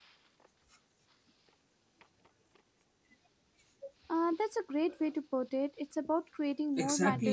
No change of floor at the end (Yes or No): No